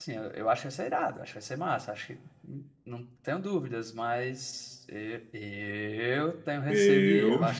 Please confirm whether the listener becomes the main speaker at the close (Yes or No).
No